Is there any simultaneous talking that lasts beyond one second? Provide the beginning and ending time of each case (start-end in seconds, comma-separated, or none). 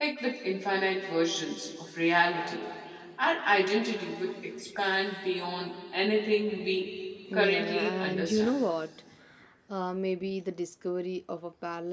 7.3-8.6